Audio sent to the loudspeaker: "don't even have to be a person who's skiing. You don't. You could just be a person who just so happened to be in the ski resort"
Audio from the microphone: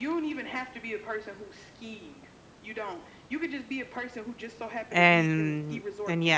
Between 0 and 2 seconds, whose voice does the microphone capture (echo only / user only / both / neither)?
echo only